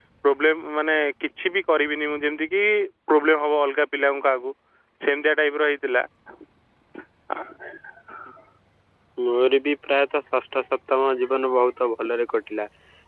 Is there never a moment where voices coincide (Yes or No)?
Yes